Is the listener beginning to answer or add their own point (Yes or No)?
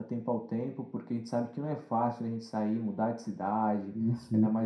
No